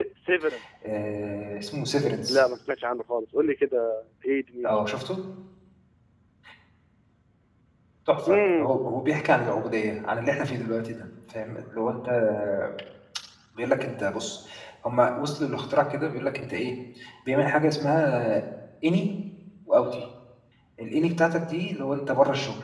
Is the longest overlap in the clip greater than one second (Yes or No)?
No